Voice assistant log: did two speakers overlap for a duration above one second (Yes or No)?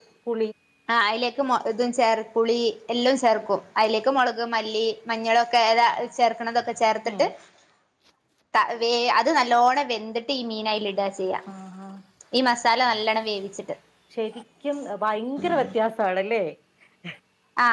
No